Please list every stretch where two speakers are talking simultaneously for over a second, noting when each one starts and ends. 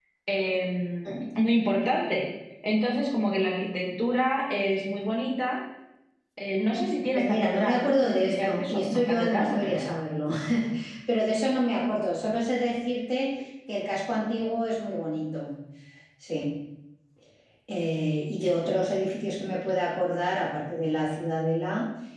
7.1-9.9

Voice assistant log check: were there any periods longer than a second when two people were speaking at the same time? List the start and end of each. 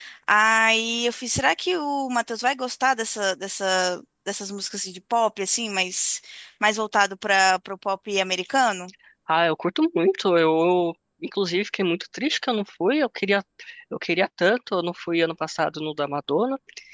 none

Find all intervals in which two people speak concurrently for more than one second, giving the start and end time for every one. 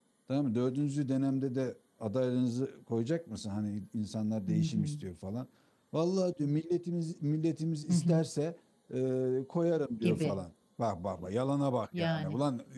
none

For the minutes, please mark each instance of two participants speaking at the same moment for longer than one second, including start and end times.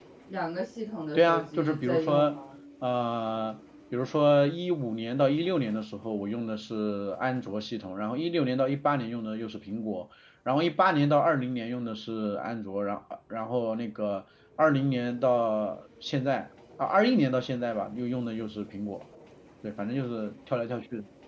1.1-2.4

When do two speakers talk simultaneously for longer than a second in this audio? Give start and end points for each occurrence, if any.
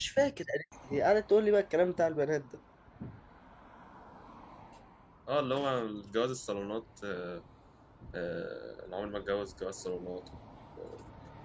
none

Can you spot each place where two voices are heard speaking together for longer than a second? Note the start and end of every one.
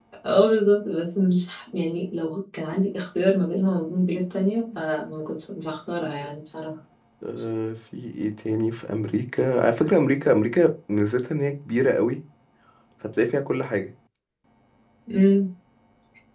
none

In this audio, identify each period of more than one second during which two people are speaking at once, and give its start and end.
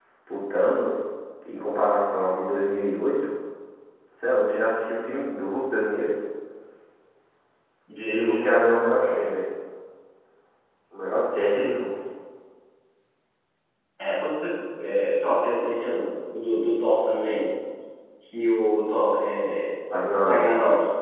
none

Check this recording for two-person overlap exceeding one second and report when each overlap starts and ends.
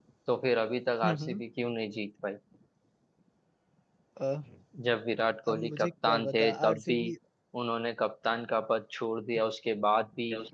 5.5-7.0

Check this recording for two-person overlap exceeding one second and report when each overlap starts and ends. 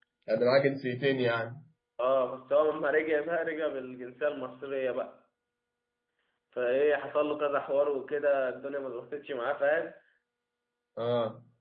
none

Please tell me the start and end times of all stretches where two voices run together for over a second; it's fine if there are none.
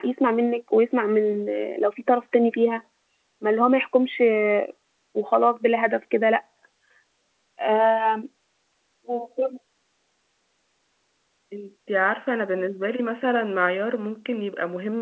none

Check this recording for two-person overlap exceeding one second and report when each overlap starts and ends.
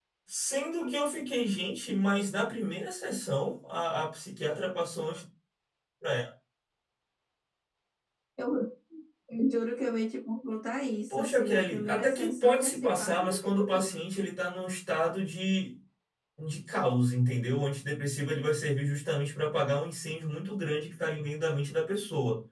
11.1-13.9

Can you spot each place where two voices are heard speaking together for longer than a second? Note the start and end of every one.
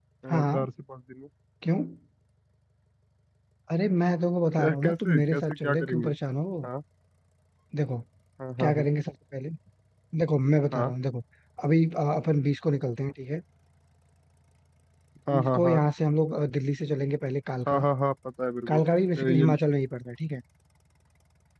4.6-6.1

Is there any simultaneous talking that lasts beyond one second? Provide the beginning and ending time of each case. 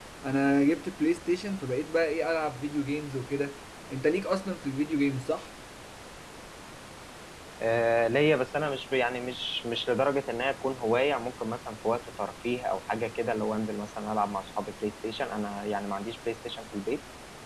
none

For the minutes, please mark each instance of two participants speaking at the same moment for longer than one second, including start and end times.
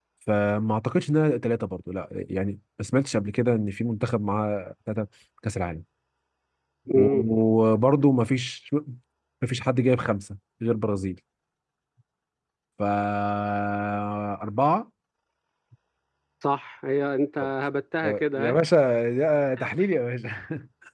none

